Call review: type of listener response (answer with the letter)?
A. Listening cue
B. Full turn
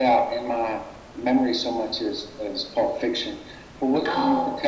A